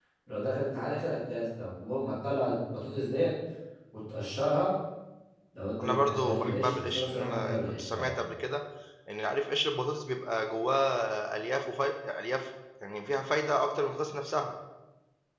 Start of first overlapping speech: 5.8 s

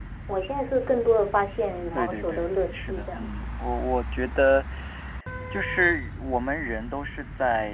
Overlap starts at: 1.9 s

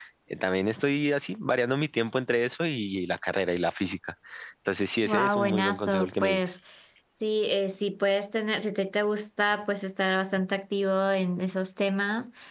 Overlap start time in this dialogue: 5.0 s

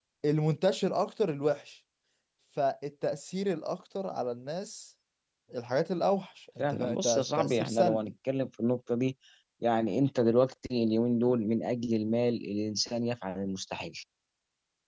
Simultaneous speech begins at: 6.6 s

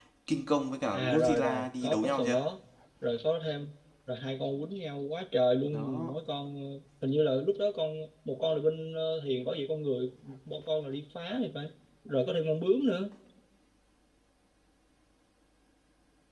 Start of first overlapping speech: 0.9 s

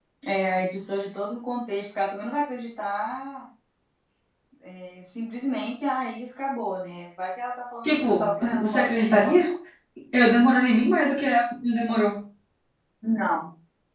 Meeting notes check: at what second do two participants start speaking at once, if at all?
7.8 s

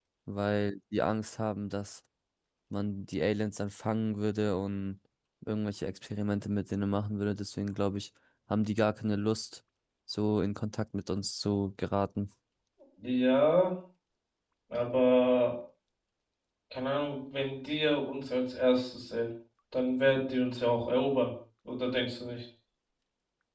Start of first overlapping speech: none

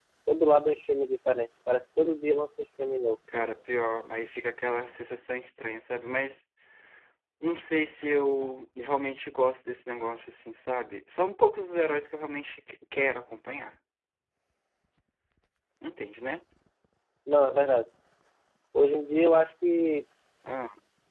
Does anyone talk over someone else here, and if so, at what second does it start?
none

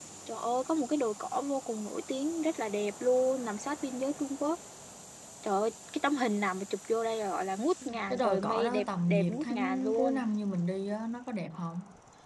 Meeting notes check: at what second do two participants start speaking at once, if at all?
8.1 s

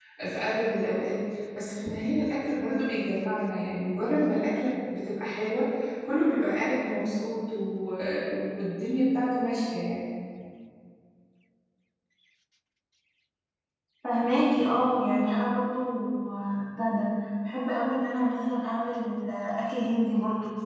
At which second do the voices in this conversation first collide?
none

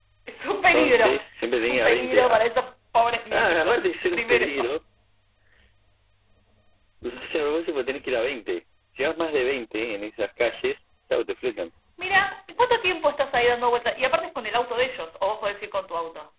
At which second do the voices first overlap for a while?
0.7 s

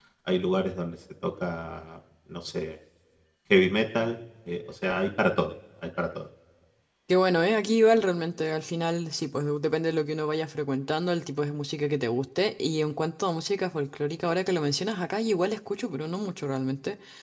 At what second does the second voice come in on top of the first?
none

